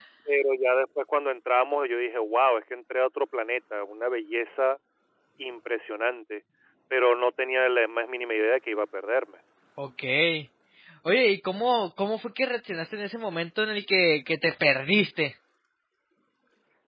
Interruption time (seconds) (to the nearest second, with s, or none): none